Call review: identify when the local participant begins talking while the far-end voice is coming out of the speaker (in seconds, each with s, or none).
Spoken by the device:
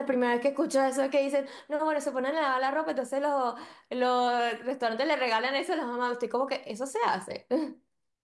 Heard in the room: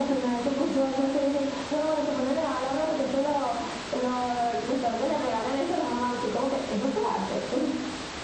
none